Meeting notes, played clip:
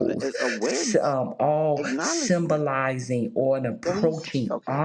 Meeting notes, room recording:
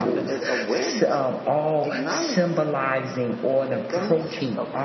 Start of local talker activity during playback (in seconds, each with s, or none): none